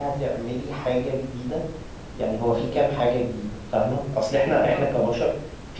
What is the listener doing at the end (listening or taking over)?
listening